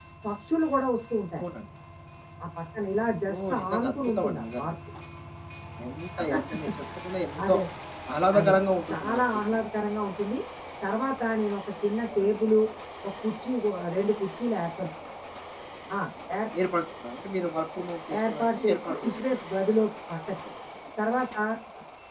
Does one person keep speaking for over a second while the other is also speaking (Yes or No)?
Yes